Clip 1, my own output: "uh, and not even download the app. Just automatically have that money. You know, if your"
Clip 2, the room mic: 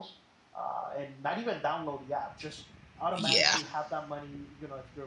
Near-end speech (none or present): present